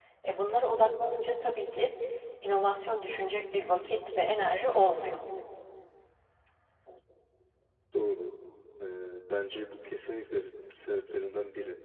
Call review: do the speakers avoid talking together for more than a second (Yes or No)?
Yes